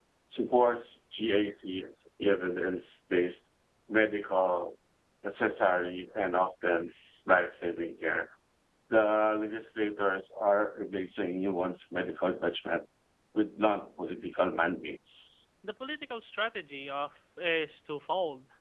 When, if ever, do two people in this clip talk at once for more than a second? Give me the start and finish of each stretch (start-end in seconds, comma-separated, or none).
none